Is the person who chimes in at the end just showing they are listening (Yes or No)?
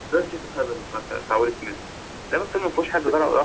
Yes